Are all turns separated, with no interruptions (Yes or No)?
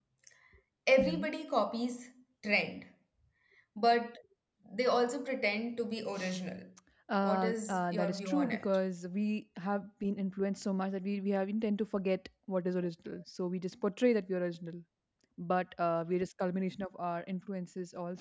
No